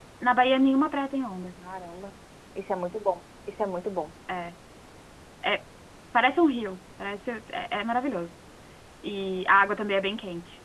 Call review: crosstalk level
none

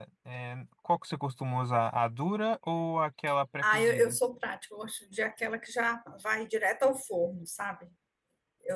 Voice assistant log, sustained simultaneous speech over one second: none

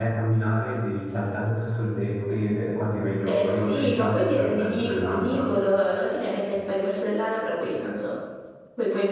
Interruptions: present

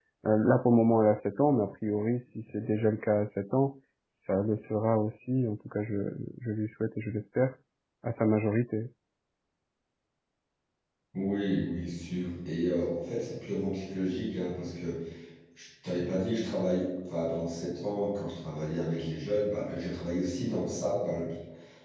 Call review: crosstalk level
none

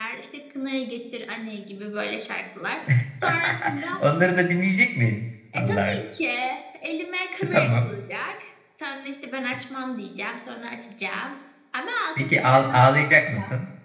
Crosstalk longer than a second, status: present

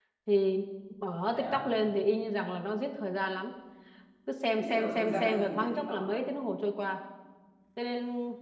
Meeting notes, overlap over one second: present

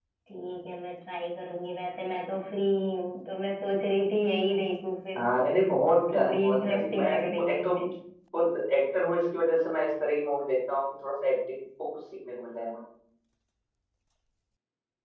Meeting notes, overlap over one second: present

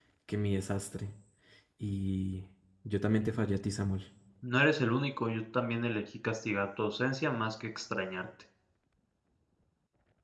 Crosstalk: none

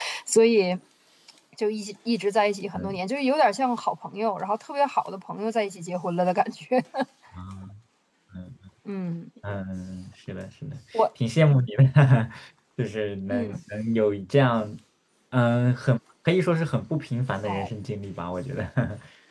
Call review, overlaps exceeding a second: none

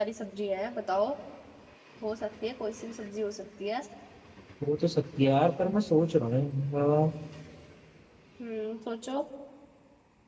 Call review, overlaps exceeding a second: none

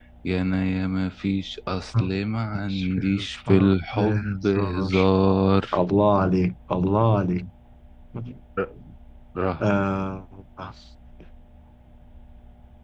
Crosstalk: present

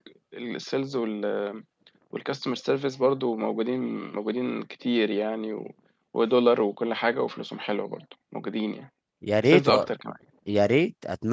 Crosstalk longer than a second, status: none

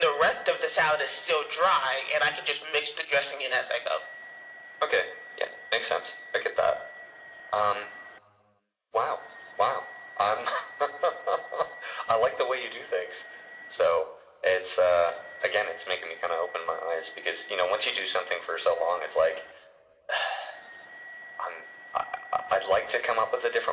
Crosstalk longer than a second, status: none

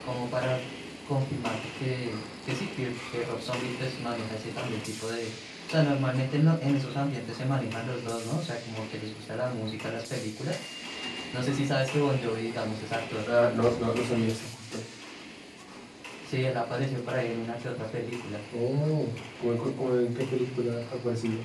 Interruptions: none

